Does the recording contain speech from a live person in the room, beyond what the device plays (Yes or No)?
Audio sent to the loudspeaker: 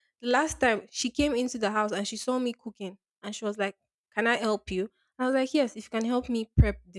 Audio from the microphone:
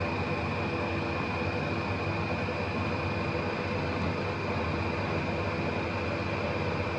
No